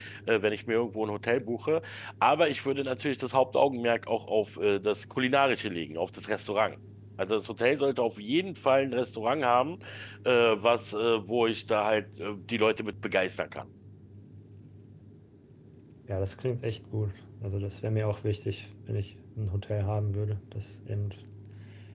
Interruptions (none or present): none